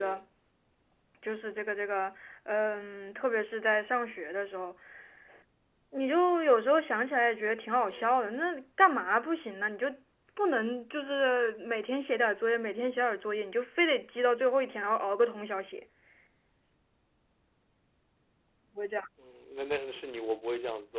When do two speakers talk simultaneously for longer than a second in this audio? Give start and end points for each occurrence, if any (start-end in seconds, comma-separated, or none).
none